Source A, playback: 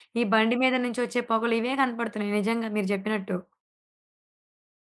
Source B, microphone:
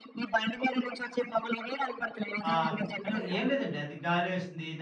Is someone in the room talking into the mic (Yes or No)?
Yes